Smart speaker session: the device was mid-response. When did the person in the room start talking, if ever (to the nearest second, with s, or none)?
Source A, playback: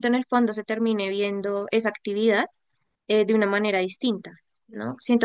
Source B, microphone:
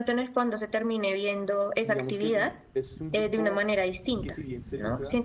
2 s